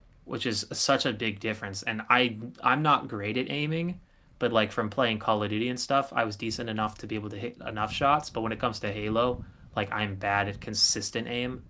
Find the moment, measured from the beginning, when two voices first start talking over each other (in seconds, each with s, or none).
none